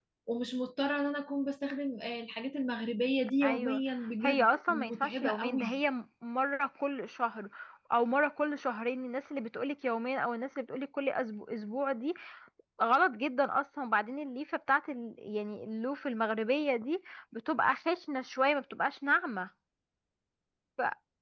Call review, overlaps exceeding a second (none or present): present